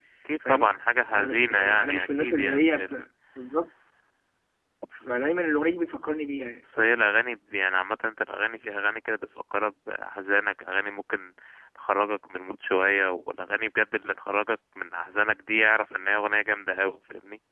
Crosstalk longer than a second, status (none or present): present